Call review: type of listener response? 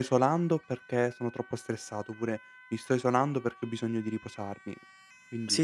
taking over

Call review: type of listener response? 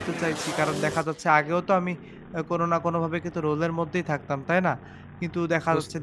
listening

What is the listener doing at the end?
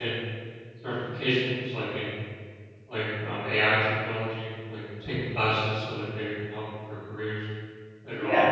taking over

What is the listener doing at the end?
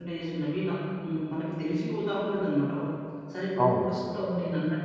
listening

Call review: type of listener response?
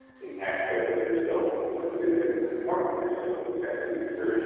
listening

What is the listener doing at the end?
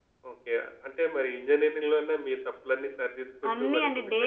taking over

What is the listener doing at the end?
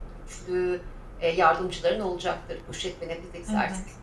taking over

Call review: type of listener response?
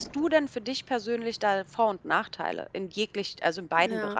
taking over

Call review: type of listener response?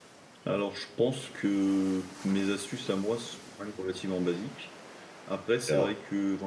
listening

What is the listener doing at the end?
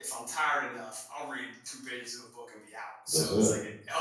listening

